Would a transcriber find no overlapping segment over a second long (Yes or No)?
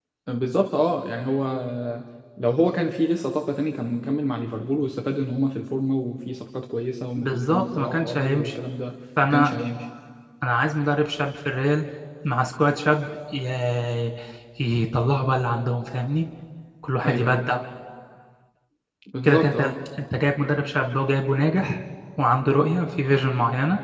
No